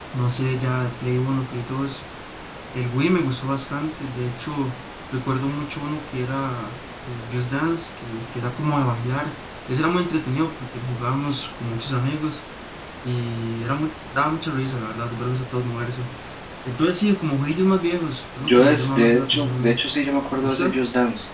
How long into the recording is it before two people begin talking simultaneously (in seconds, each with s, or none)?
18.4 s